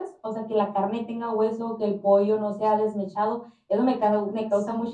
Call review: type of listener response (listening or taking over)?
listening